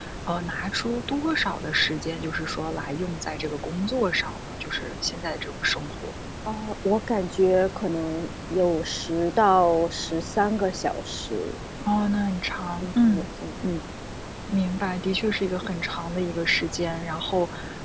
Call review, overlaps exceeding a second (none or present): none